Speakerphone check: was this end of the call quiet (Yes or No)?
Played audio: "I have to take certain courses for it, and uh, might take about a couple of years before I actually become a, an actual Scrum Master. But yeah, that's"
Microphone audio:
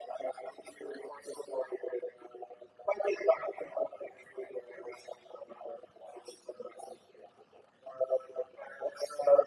Yes